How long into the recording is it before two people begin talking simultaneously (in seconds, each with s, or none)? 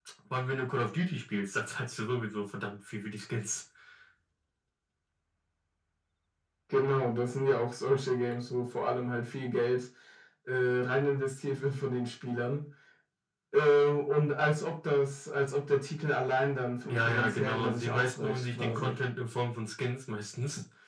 16.8 s